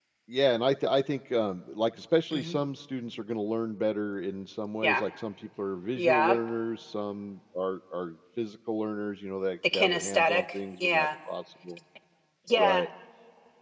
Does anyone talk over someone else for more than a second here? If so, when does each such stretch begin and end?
9.7-11.1

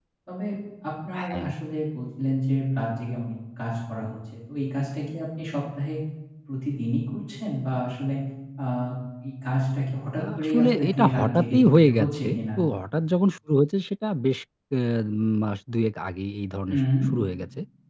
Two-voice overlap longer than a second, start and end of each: 10.2-12.4

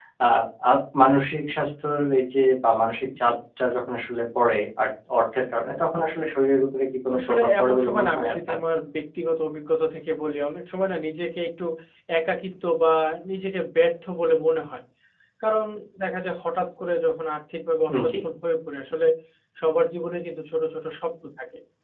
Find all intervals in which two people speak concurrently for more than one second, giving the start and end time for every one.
7.2-8.6

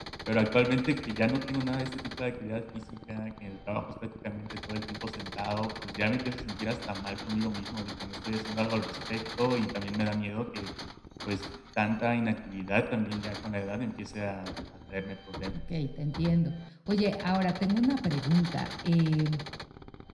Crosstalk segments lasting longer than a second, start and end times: none

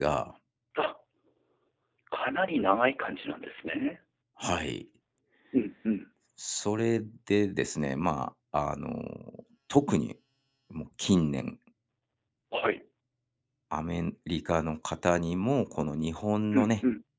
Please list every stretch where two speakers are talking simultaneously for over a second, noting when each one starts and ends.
none

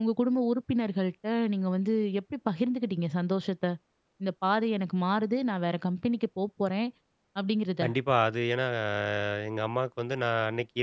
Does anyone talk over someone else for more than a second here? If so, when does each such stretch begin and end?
none

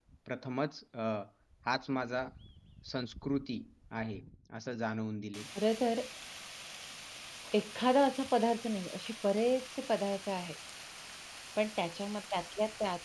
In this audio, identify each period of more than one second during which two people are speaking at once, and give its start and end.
none

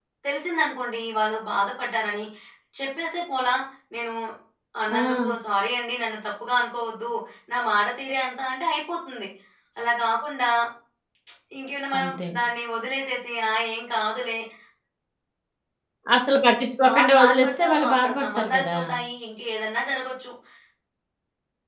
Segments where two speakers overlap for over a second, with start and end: 16.9-18.8

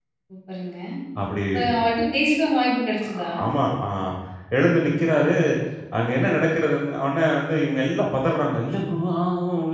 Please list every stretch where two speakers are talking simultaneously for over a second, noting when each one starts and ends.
none

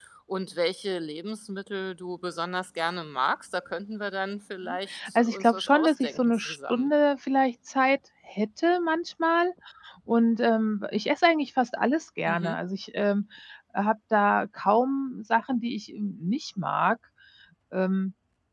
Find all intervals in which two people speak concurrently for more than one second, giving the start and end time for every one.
4.6-6.9

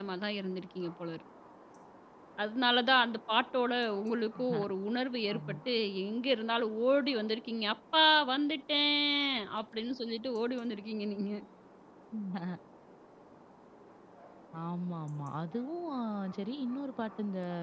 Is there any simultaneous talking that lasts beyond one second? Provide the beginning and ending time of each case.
none

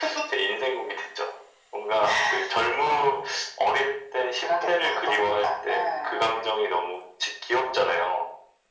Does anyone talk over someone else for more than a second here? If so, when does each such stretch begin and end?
4.4-6.5

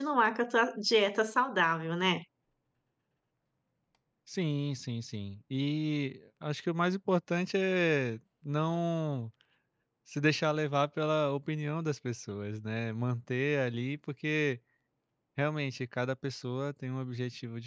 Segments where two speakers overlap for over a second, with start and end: none

